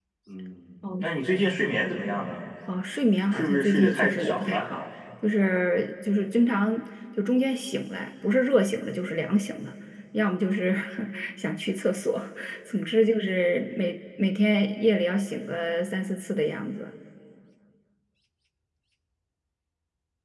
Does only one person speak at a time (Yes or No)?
No